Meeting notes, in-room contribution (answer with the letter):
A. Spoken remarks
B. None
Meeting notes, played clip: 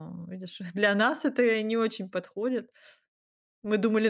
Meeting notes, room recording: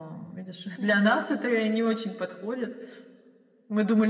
A